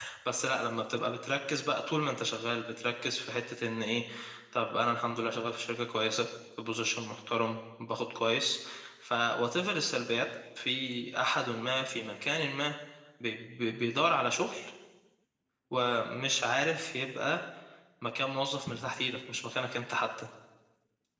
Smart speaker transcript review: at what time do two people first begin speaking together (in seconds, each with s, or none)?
none